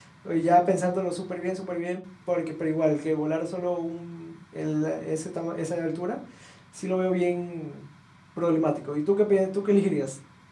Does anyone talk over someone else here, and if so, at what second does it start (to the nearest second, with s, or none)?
none